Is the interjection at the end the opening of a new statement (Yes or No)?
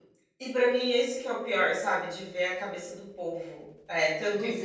No